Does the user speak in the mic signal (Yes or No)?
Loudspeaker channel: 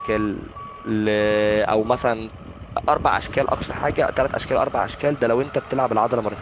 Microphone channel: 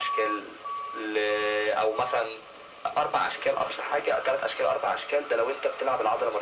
No